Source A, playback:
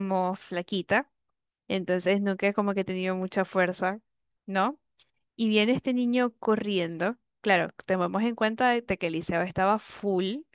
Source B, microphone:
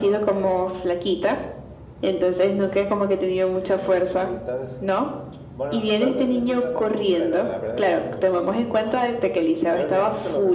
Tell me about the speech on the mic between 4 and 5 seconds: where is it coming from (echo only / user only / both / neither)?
both